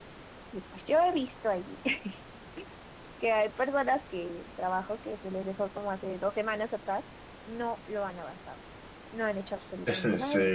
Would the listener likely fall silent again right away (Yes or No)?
No